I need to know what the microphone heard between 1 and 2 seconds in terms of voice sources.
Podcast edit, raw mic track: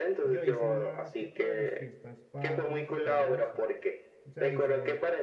both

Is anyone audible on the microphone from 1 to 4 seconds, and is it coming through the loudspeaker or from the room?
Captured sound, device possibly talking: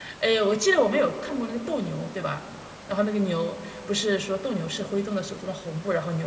user only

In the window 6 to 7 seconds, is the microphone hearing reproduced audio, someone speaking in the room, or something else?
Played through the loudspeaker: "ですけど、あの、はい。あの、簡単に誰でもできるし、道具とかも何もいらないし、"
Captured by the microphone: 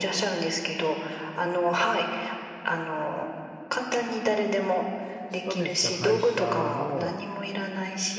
both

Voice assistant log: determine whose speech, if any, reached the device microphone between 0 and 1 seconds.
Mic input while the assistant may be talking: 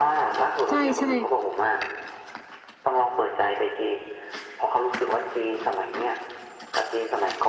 both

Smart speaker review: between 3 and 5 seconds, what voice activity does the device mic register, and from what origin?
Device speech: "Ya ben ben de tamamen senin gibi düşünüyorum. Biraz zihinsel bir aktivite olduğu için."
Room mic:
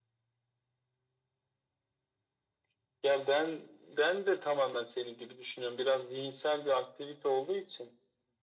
echo only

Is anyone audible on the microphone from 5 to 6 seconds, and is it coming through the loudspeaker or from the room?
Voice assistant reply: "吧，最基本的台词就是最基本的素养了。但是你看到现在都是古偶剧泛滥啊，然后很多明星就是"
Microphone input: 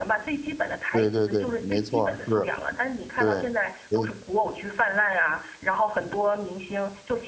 echo only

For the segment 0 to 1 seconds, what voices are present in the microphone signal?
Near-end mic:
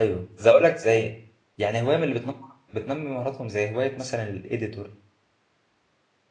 user only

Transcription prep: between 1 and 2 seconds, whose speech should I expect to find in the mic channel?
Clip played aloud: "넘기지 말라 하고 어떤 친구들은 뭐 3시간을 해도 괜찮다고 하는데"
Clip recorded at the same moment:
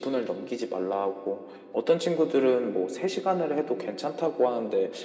echo only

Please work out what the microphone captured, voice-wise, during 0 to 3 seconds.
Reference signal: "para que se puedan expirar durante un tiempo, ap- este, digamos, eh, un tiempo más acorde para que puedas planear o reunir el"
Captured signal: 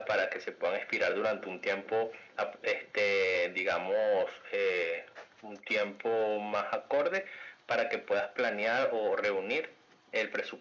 echo only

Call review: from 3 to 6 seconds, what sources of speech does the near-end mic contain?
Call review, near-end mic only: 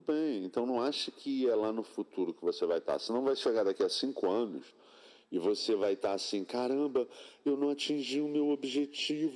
echo only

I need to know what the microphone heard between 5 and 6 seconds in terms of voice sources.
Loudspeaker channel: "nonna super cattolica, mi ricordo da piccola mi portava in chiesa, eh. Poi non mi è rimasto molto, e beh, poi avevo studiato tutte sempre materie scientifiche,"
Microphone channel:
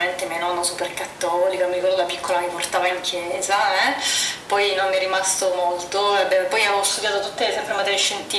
echo only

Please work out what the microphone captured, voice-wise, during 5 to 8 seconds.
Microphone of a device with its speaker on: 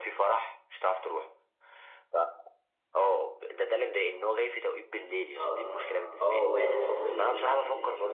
both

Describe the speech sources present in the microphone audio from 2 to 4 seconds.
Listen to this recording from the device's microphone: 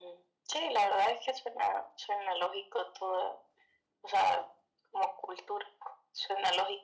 echo only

